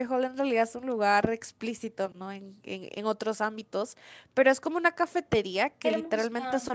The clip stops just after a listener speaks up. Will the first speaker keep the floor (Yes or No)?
Yes